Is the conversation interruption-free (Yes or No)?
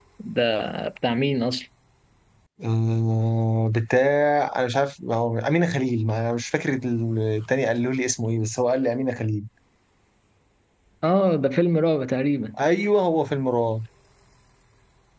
Yes